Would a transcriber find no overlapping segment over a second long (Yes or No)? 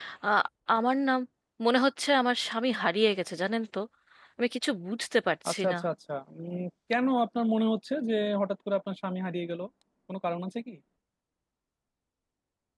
Yes